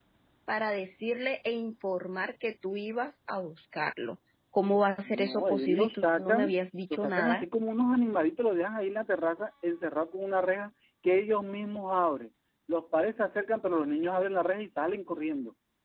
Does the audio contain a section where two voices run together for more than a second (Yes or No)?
Yes